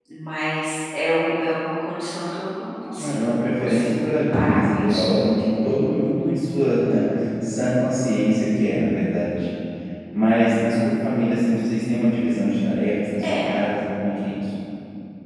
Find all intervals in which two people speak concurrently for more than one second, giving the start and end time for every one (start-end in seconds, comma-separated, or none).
3.0-5.1